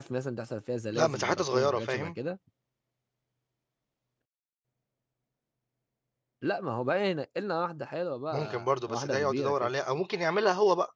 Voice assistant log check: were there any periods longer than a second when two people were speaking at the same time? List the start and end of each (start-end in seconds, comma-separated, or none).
0.9-2.1, 8.3-9.7